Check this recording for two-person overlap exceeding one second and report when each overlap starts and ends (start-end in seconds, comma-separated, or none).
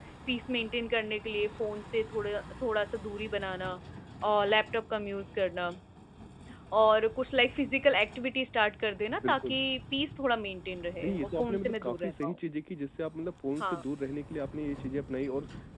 11.0-12.4